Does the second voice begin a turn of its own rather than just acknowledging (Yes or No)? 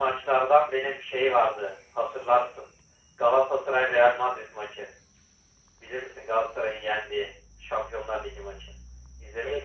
Yes